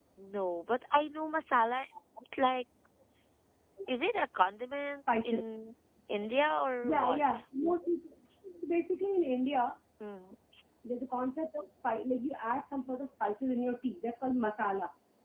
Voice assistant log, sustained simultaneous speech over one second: none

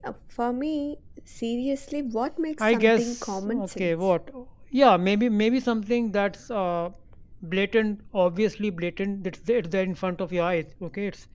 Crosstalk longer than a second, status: present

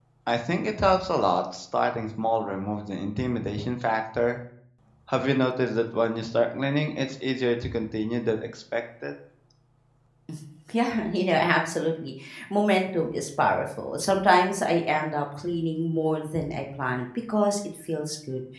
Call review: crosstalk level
none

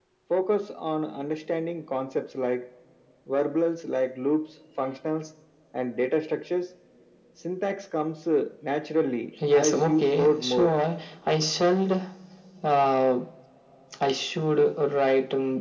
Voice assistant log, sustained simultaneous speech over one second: present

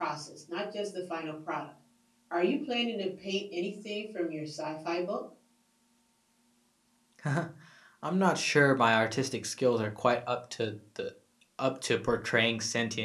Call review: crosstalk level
none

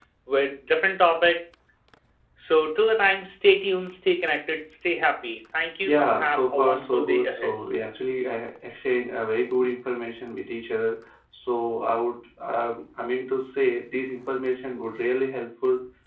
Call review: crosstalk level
present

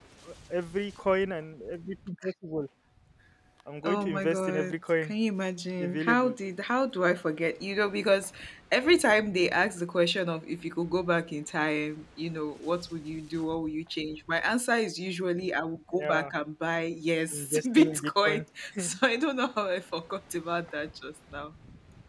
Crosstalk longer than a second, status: present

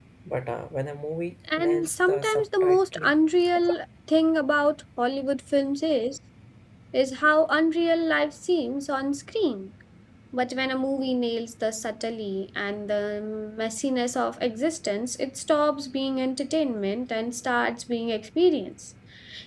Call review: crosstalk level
present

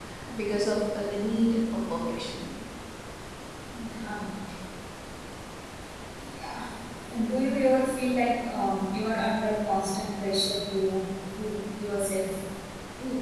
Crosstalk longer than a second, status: none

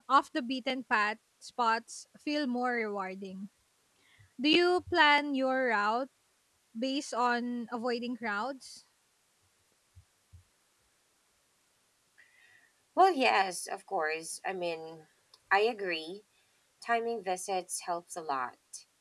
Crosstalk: none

